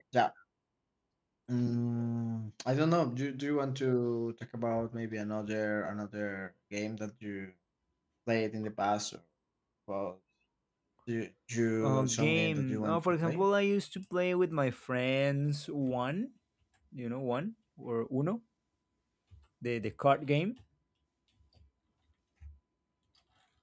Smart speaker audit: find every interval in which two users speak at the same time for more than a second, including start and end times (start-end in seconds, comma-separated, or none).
12.0-13.4